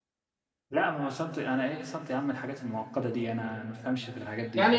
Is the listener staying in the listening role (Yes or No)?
No